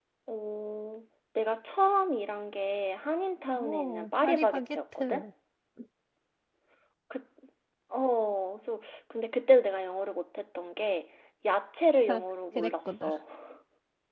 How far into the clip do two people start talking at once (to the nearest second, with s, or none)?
4 s